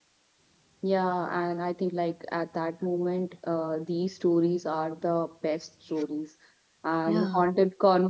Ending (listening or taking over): listening